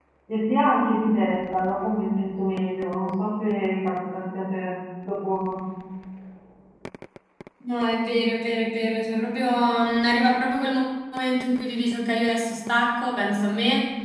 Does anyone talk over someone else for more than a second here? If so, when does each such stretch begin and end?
none

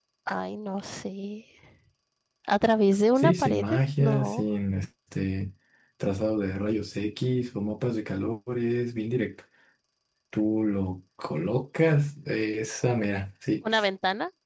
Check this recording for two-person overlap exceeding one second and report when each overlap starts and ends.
3.2-4.4

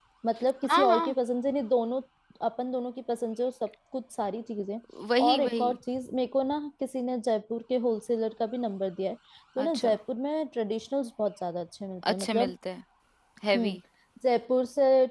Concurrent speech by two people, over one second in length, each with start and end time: none

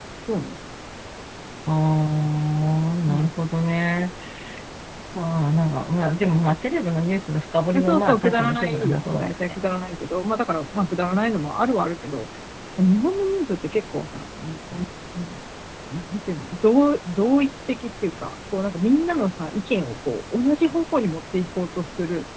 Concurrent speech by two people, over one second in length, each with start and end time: 7.8-9.3

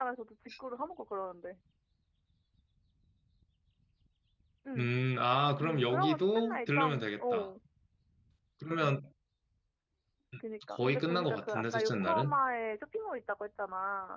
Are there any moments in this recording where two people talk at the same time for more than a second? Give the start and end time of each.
5.6-7.5, 10.8-12.4

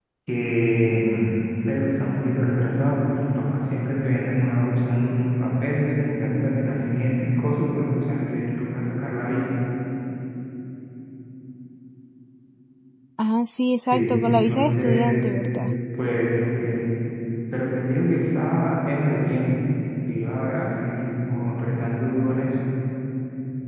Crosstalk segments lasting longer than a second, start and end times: 13.8-15.1

